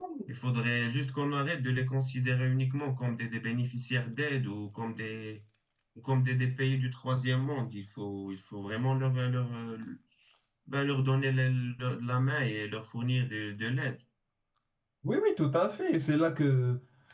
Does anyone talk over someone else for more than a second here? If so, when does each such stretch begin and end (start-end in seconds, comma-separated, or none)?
none